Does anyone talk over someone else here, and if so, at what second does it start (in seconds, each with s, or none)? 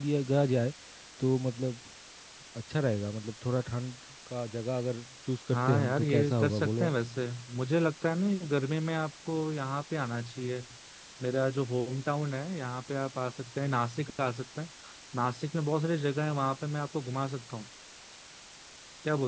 5.5 s